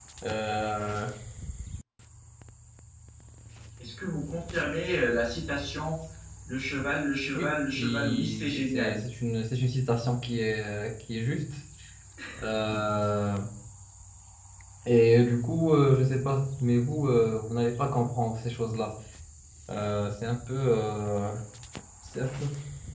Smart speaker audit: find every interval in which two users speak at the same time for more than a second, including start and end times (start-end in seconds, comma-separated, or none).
7.4-9.0